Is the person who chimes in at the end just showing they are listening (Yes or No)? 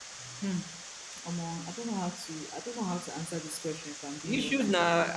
No